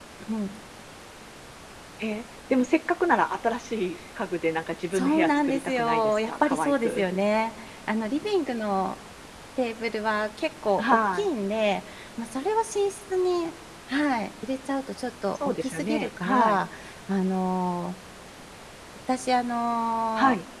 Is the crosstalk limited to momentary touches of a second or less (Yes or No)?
No